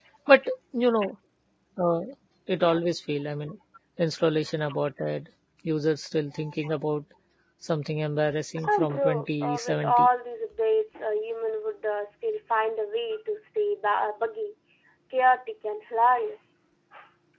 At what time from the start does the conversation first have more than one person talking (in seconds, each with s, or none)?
8.6 s